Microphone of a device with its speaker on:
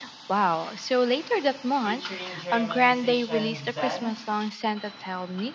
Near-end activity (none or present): present